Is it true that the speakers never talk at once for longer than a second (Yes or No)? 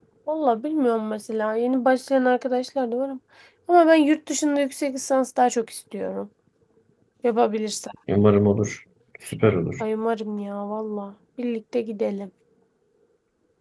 Yes